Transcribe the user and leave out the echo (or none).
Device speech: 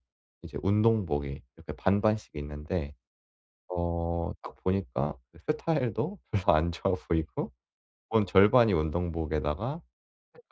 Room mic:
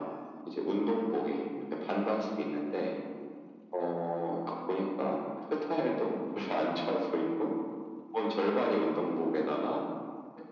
none